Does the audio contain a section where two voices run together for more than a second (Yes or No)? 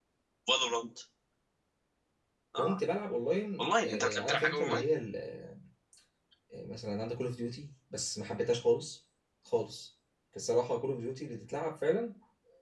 Yes